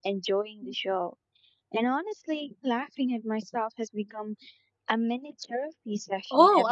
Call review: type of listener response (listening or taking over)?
taking over